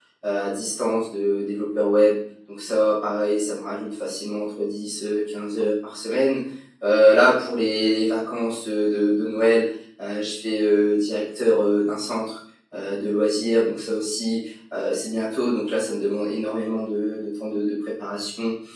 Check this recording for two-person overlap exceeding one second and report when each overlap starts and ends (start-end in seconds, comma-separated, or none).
none